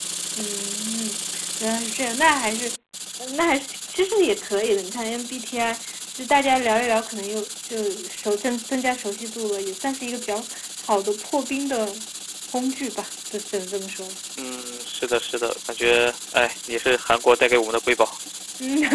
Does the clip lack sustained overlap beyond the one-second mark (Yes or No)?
Yes